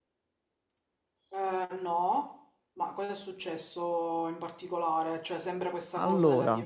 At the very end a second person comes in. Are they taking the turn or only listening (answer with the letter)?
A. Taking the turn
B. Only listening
B